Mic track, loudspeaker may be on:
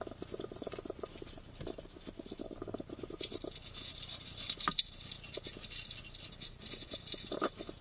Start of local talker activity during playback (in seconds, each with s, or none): none